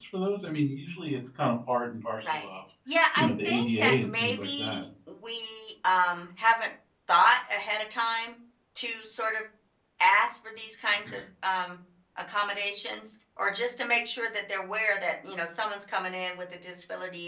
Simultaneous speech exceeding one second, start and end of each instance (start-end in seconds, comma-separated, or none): 3.2-4.8